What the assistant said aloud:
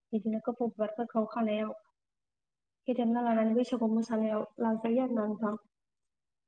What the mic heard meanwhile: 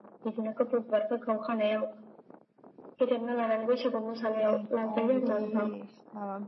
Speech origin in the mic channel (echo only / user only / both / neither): both